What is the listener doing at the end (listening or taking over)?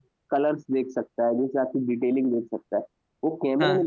listening